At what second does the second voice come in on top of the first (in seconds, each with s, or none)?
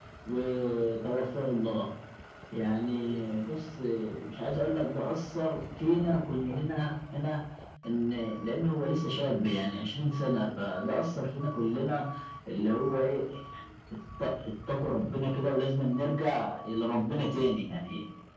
none